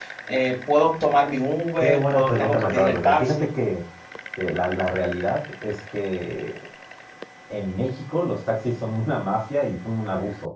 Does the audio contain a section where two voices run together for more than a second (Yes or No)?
Yes